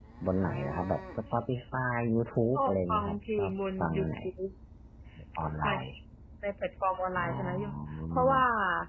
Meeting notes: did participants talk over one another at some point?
Yes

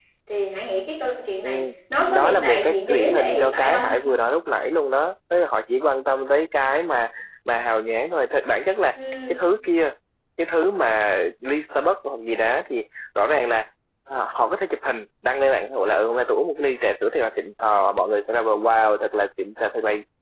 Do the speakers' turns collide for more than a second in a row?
Yes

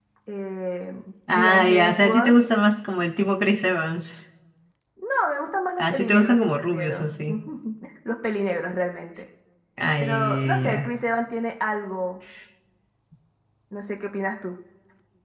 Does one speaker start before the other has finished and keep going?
Yes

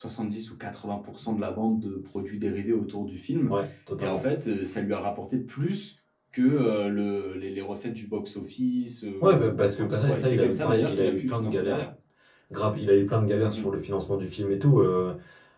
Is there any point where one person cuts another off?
Yes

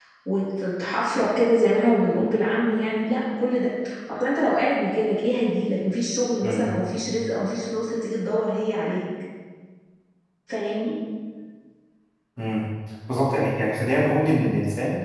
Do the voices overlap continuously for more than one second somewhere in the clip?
No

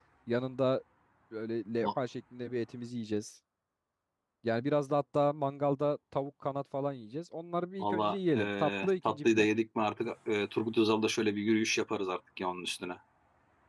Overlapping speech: Yes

